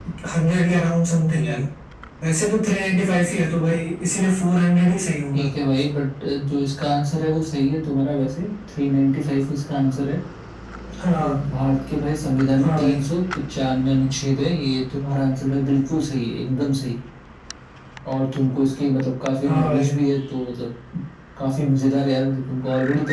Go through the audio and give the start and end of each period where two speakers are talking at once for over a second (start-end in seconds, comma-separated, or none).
none